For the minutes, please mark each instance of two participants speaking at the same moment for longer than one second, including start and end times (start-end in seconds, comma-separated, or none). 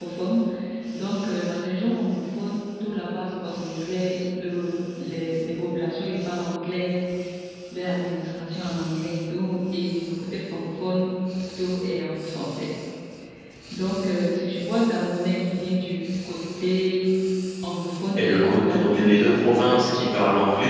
18.2-20.1